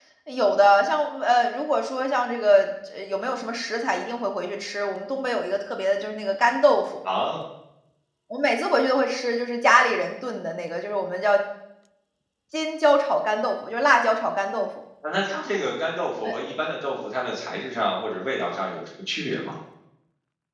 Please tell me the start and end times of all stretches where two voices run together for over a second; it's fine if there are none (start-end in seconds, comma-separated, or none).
none